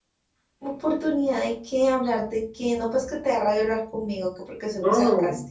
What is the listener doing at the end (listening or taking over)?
taking over